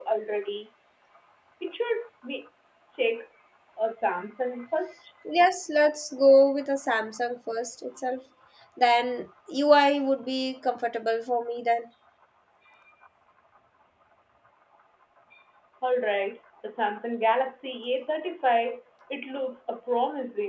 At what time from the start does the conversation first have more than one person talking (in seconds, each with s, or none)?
none